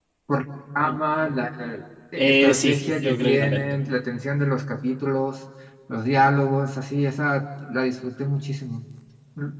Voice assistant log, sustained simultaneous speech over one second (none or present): present